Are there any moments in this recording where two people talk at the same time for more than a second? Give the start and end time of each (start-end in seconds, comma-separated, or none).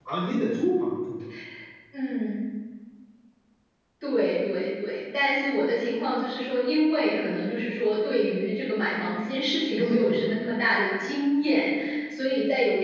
none